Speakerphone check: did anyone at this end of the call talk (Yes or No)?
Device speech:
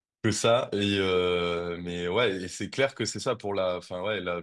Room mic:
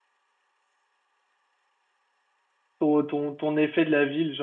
Yes